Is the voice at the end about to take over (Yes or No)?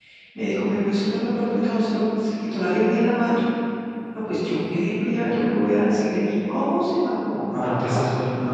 Yes